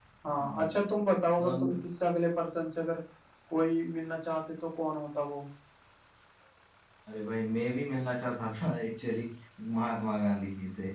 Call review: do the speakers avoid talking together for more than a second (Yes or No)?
Yes